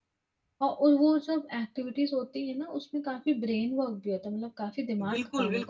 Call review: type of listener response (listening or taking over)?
taking over